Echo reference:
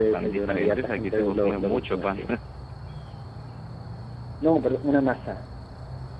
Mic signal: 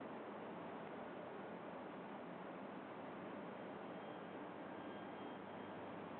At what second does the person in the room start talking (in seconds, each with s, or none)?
none